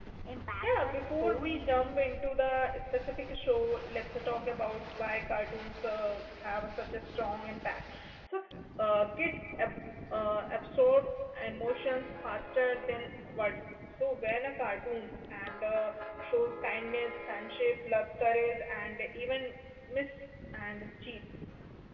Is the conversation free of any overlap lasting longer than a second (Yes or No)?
No